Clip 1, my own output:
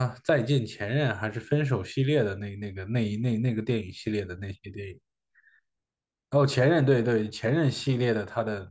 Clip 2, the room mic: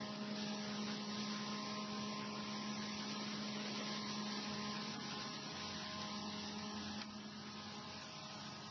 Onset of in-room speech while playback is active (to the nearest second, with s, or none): none